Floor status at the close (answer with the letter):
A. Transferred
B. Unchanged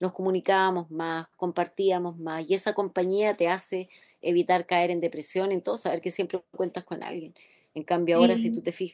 B